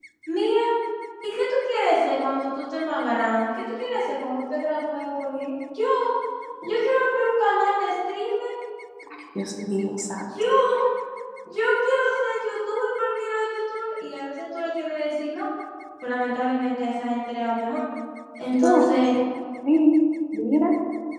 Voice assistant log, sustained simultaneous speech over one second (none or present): none